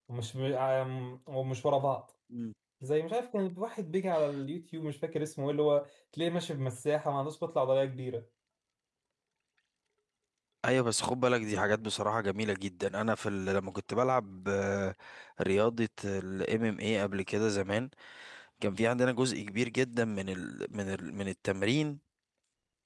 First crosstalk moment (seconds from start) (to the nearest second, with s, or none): none